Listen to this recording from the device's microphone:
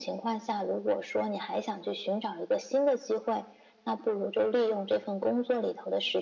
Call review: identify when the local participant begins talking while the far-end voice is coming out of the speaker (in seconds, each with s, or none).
none